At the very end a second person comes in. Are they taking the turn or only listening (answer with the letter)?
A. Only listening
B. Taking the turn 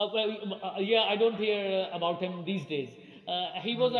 A